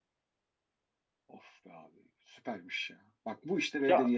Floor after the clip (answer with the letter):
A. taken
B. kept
B